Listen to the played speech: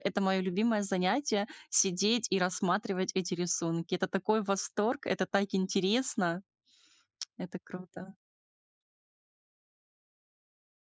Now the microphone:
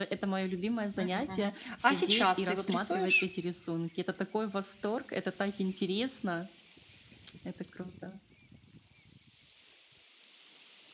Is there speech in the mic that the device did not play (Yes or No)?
Yes